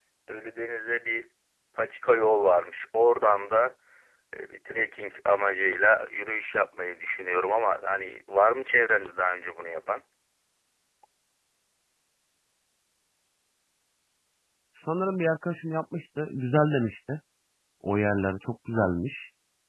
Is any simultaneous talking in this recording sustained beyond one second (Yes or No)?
No